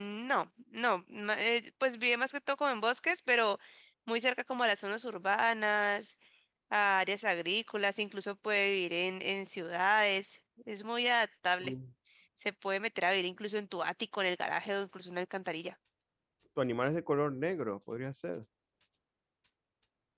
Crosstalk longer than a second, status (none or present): none